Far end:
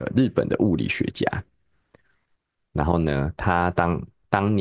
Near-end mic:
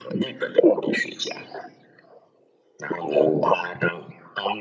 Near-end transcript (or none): 哦。